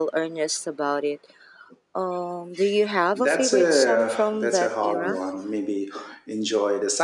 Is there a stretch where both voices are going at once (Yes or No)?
Yes